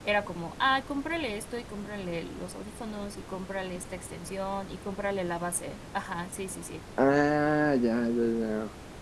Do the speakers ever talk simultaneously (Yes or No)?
No